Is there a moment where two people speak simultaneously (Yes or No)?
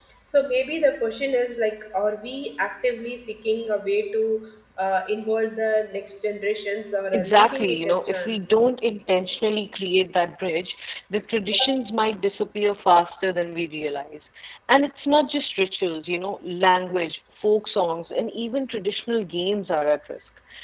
Yes